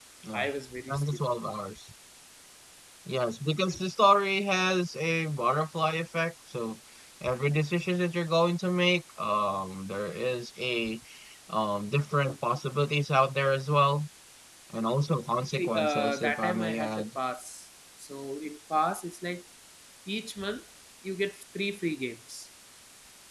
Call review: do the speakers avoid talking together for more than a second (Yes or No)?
No